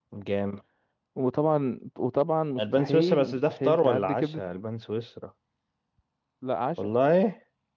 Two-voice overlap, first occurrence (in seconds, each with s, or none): 2.6 s